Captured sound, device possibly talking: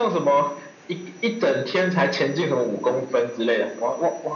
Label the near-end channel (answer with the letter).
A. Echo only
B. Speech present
A